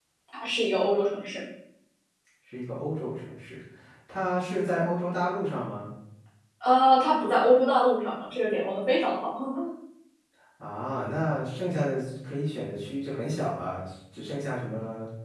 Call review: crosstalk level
none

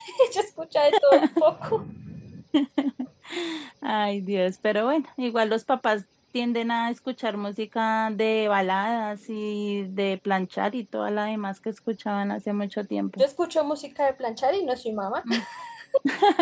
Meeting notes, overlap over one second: none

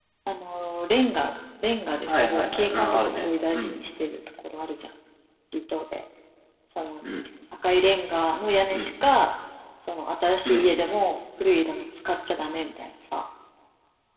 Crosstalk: present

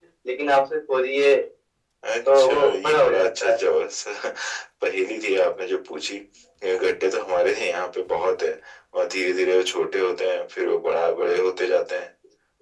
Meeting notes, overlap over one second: present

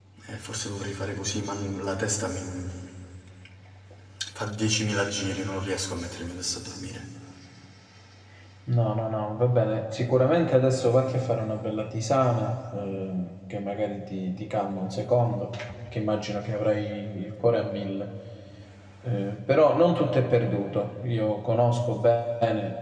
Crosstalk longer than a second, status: none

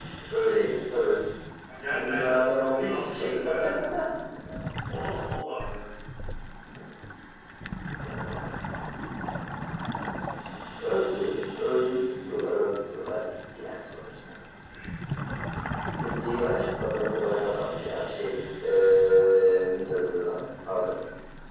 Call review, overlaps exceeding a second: present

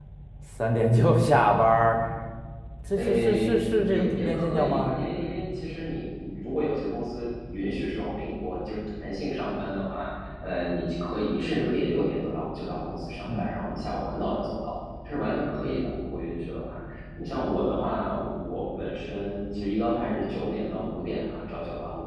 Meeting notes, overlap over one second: present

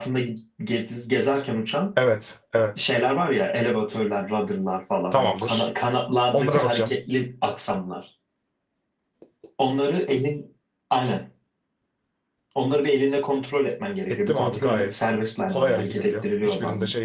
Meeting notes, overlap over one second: present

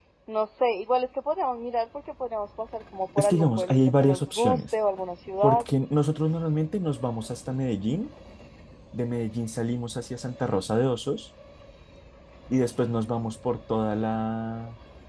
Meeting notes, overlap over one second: present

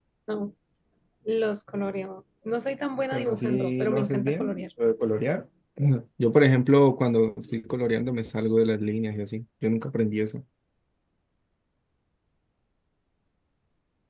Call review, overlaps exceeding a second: present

